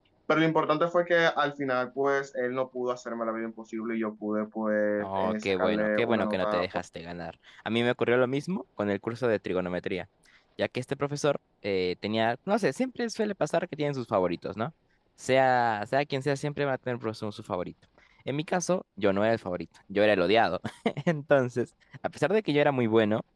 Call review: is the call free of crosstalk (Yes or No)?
No